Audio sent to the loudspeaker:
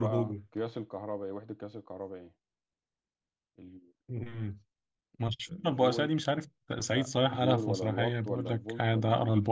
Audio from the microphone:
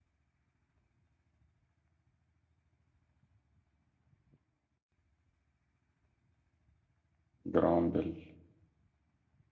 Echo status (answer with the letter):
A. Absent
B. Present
A